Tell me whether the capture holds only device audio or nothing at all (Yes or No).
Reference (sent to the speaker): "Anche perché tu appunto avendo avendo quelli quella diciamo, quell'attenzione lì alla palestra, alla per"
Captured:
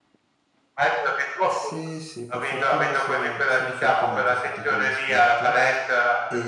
No